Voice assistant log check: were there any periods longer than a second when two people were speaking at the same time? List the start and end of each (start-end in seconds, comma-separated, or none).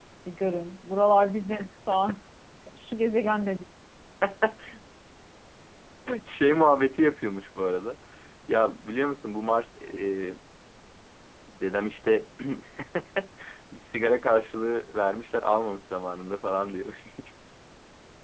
none